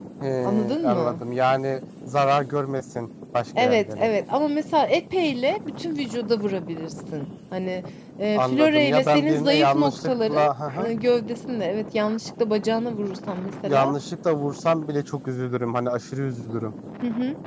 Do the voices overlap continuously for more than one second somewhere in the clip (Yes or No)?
Yes